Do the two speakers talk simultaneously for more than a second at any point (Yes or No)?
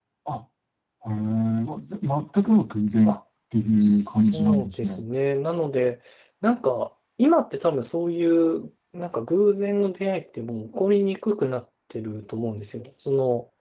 Yes